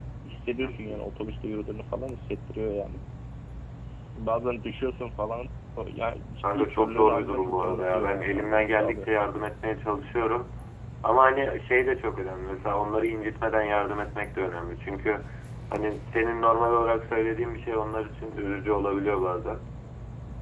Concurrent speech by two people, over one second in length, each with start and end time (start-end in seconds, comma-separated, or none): 6.5-9.1